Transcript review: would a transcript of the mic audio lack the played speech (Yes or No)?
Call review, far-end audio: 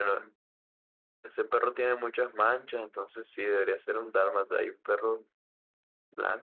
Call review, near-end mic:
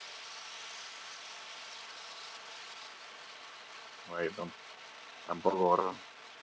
Yes